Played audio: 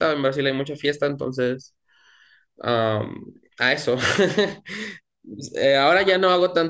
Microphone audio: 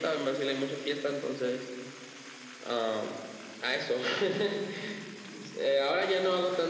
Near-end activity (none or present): none